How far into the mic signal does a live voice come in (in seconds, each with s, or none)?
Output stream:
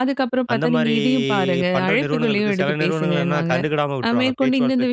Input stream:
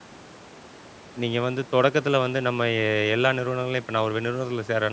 1.2 s